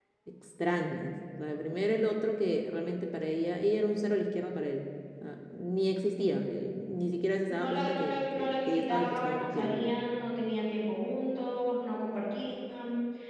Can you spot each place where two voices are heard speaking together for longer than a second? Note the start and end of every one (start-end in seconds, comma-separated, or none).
7.5-9.9